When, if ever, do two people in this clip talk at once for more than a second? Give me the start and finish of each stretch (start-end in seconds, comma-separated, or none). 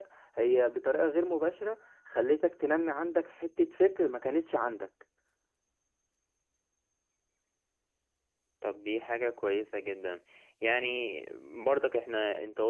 none